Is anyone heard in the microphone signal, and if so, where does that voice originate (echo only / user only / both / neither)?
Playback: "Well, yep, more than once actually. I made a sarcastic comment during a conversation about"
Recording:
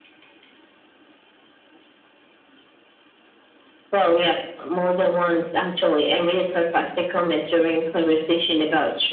echo only